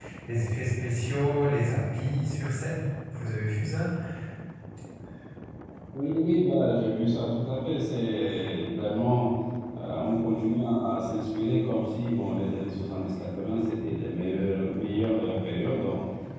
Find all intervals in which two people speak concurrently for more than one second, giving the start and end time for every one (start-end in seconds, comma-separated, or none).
none